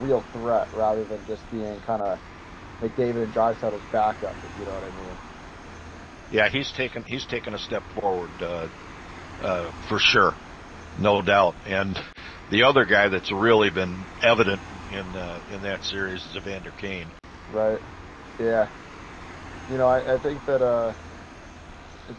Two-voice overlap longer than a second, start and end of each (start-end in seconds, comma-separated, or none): none